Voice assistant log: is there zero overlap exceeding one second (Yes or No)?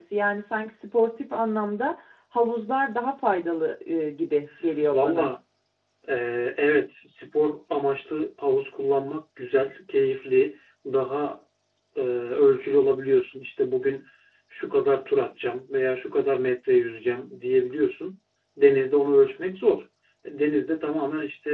Yes